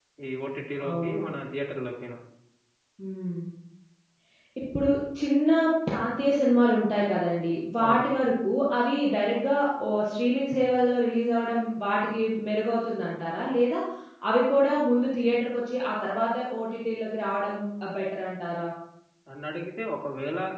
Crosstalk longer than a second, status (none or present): none